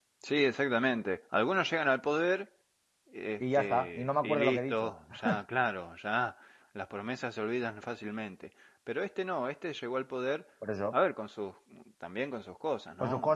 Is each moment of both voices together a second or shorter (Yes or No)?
No